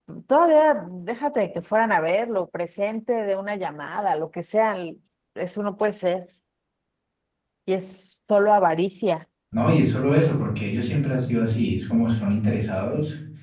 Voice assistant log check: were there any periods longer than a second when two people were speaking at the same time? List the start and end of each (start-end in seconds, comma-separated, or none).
none